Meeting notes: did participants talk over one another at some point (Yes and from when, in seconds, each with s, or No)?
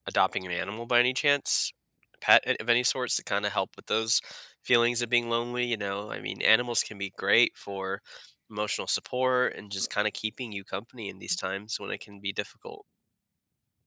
No